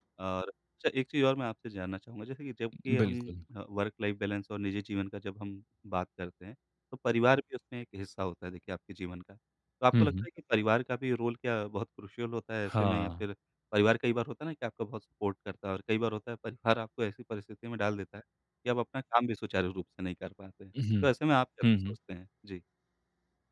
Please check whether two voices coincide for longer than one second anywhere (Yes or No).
No